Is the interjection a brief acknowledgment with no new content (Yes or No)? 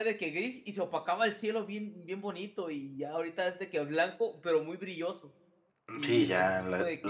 No